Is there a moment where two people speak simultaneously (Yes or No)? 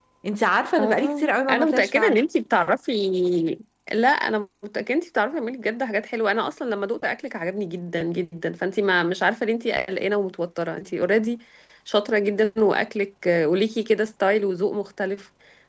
Yes